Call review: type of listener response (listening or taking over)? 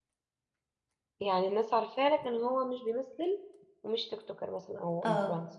taking over